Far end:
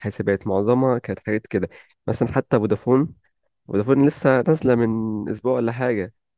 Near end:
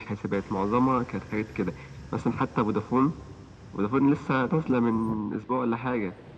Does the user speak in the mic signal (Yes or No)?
No